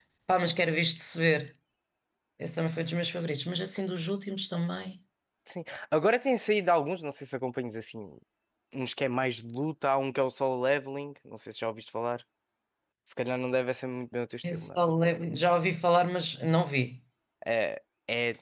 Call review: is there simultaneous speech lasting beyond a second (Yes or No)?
No